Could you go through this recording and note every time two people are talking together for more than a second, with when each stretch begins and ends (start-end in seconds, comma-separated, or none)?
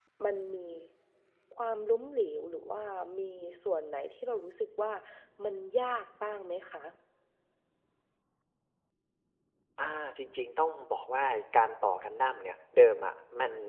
none